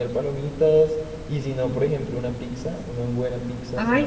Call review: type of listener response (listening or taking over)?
taking over